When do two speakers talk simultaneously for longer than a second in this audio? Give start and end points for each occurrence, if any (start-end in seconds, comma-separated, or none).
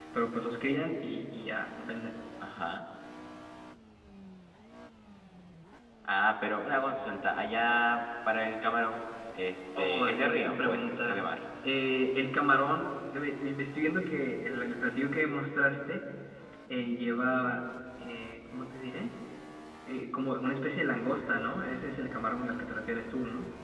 9.8-11.3